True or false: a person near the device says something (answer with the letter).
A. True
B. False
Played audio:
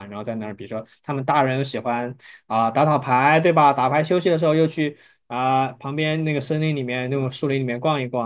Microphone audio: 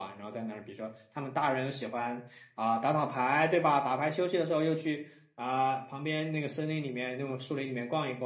B